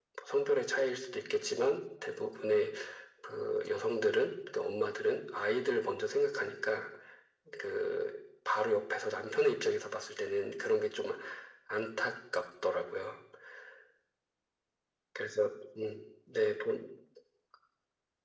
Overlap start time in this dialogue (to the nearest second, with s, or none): none